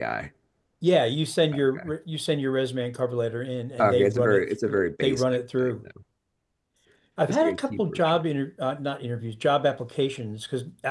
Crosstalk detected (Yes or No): Yes